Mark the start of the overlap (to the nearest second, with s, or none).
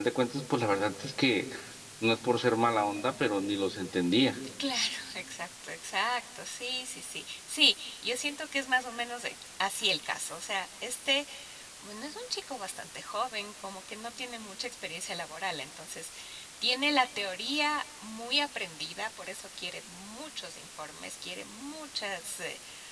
none